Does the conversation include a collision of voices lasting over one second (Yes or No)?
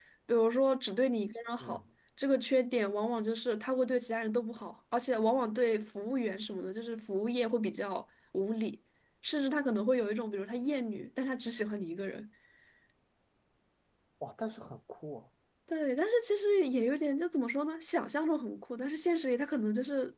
No